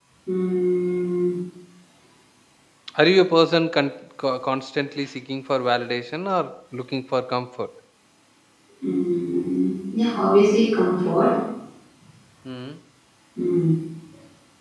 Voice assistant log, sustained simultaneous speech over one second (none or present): none